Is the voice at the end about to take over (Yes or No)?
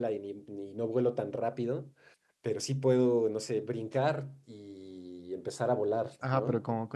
Yes